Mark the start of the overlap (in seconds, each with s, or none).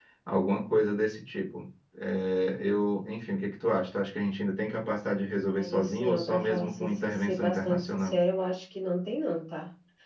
5.5 s